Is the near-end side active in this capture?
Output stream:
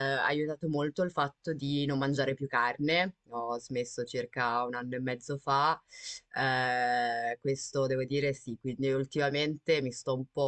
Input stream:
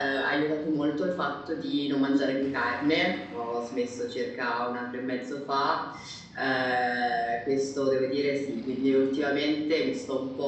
No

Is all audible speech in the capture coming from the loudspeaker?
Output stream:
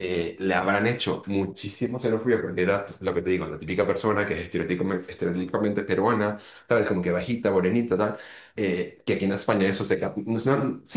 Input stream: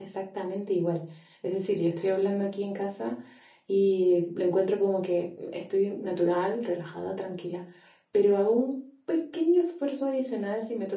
No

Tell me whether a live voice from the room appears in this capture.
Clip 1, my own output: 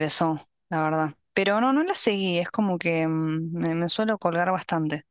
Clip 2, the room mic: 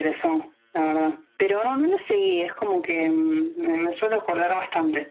No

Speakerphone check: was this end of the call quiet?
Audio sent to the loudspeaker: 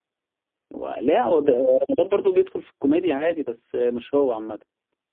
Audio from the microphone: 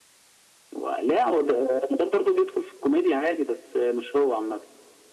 Yes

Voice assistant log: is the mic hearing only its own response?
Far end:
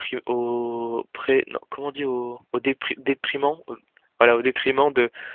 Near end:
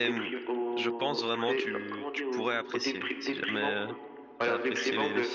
No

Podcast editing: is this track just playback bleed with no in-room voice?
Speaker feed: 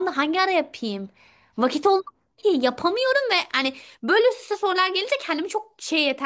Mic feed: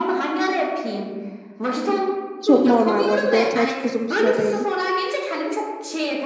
No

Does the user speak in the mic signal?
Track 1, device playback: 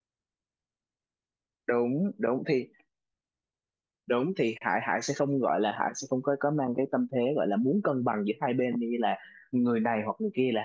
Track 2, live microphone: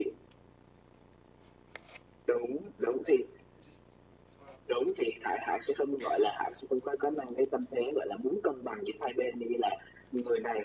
No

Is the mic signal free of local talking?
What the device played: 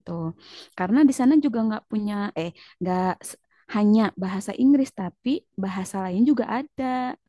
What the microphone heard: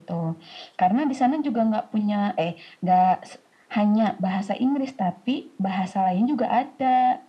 Yes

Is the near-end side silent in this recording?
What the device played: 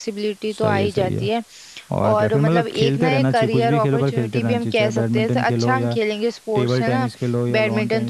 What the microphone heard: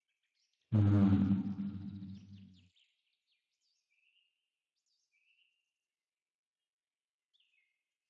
No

